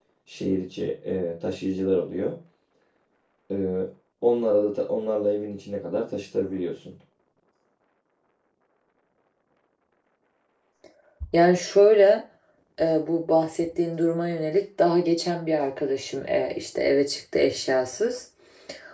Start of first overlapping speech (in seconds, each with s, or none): none